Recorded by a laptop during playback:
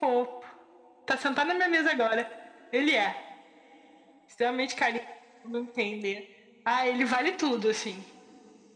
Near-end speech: none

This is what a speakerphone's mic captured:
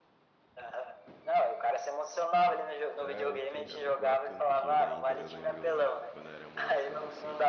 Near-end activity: present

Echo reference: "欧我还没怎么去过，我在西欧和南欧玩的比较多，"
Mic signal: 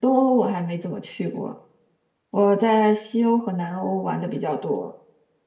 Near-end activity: none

